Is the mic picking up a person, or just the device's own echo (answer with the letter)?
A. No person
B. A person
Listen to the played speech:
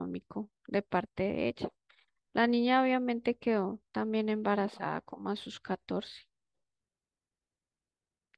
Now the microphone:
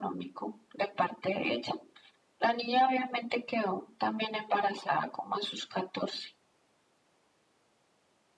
A